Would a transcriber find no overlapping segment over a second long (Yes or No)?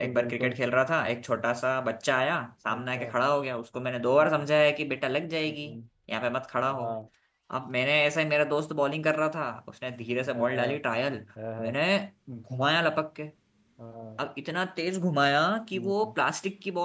Yes